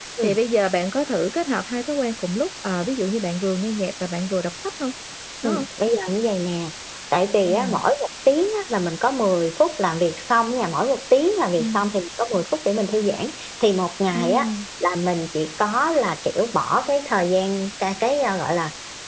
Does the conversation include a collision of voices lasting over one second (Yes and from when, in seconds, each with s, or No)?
No